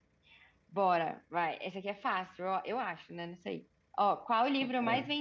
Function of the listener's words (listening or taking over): listening